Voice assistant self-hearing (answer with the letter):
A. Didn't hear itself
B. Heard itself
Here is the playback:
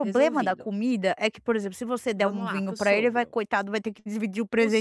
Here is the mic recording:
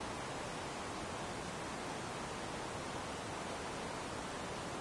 A